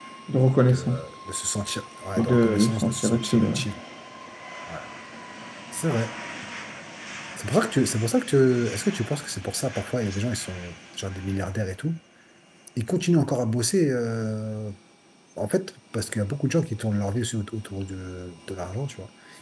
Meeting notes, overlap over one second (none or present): present